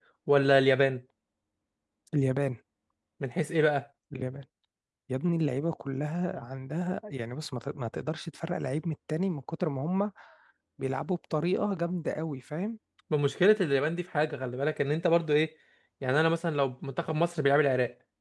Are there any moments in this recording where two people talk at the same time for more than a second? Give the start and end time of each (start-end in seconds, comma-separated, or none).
none